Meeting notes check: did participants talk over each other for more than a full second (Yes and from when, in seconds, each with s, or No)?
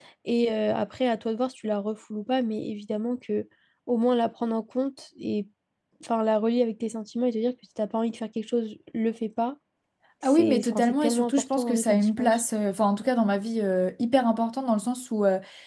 Yes, from 10.2 s